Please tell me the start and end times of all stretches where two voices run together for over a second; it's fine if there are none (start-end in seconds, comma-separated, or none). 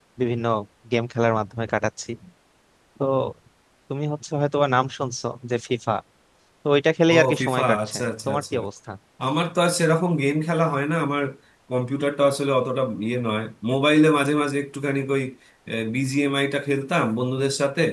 7.1-8.6